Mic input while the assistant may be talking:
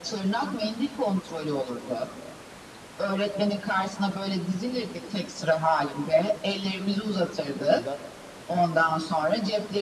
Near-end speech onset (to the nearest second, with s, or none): 8 s